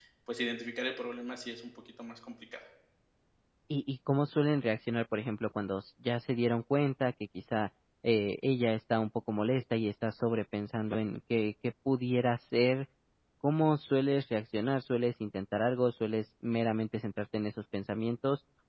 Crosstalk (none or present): none